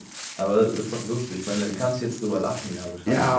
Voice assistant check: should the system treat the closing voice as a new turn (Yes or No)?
Yes